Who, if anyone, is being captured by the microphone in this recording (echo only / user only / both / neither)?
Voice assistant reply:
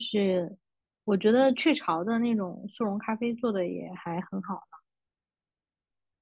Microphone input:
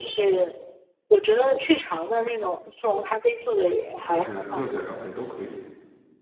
both